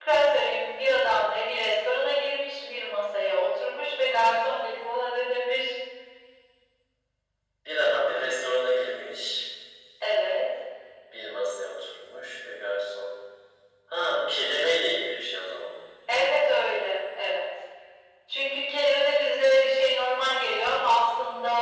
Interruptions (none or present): none